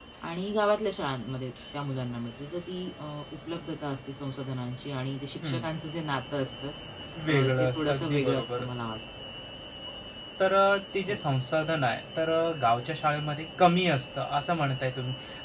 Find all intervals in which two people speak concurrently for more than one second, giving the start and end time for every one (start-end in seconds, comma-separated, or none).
7.3-8.6